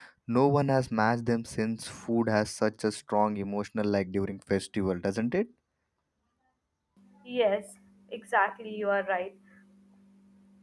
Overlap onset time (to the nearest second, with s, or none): none